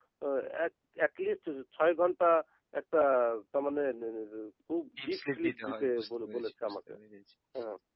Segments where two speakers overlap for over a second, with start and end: 5.0-6.7

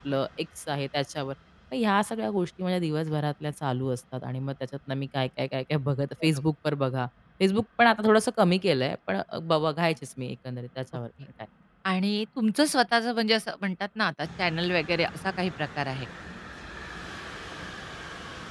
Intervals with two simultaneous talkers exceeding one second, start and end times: none

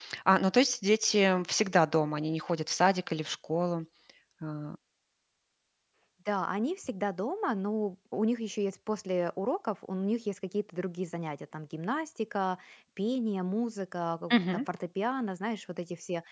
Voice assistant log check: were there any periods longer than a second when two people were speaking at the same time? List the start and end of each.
none

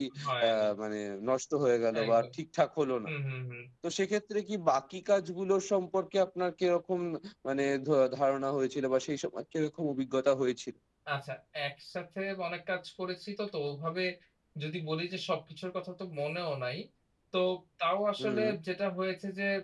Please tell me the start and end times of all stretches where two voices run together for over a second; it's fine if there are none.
none

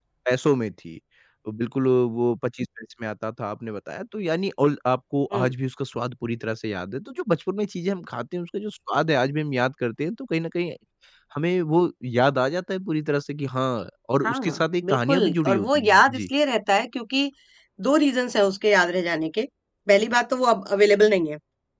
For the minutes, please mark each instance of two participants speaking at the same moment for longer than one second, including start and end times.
14.2-16.3

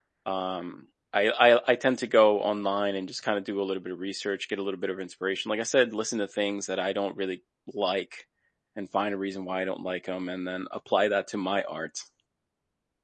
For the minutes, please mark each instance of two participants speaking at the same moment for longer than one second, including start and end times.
none

